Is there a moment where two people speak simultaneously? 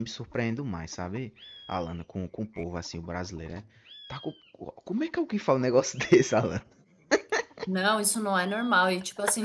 No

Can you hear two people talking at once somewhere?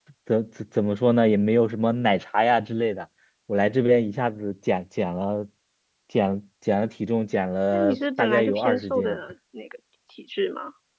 Yes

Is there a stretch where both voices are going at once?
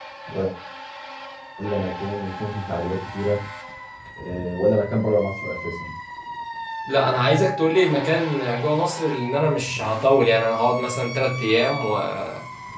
No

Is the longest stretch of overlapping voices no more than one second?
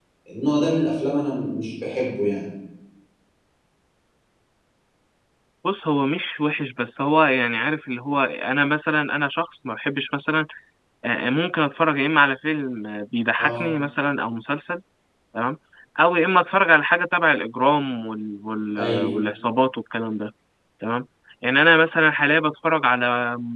Yes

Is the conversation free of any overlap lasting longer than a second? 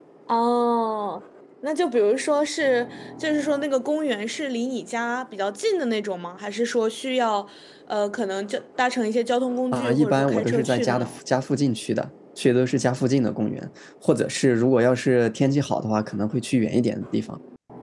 No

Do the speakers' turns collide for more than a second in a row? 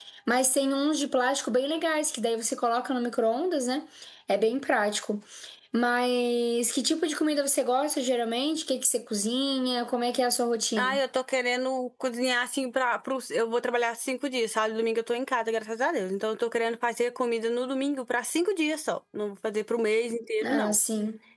No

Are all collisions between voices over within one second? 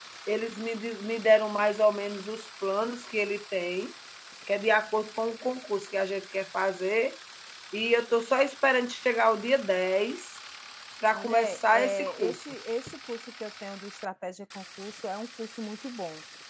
No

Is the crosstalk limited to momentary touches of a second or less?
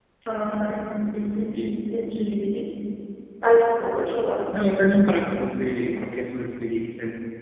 Yes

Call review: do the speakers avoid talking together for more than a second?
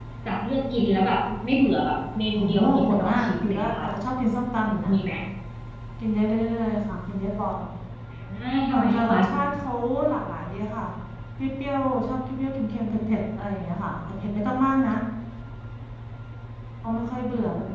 No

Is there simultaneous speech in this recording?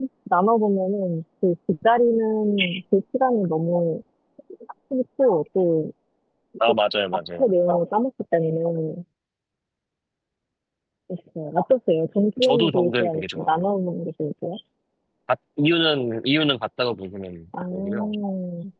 Yes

